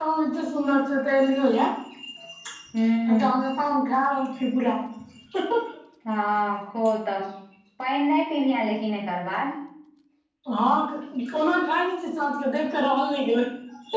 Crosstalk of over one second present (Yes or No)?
No